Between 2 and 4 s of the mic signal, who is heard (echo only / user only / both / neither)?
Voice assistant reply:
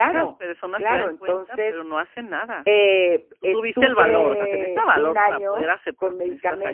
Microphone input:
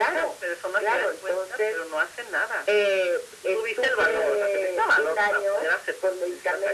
echo only